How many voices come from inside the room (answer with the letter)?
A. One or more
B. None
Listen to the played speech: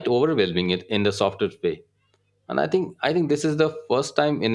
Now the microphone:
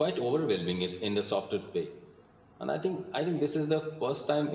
B